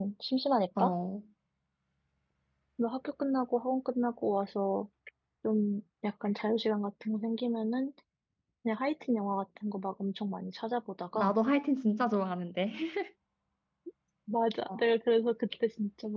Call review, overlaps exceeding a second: none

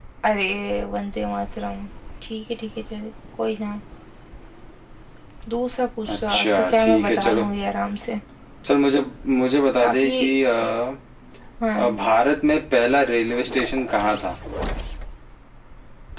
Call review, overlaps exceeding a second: present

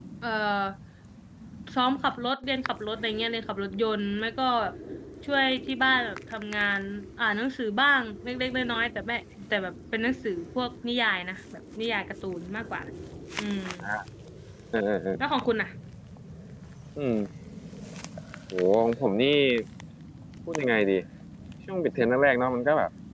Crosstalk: none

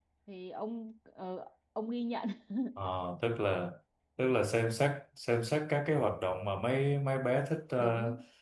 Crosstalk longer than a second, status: none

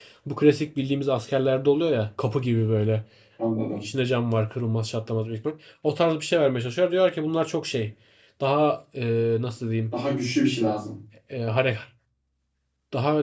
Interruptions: none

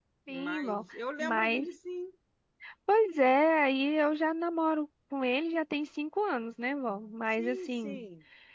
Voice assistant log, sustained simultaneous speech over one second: present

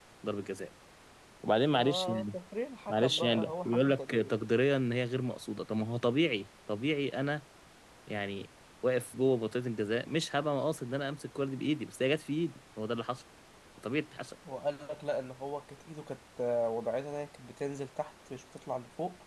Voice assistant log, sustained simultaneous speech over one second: present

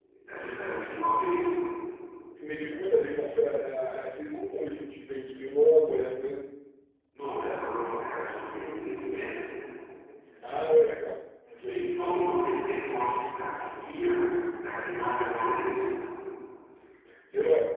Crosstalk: none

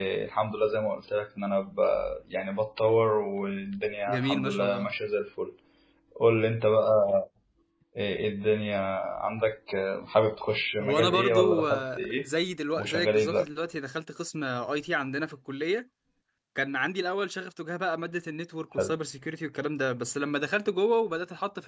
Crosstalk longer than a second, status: present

